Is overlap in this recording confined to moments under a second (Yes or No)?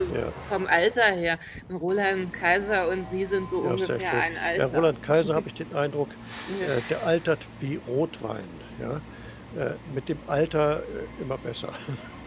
No